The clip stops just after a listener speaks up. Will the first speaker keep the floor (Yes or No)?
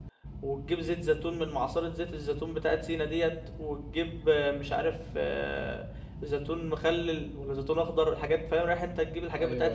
Yes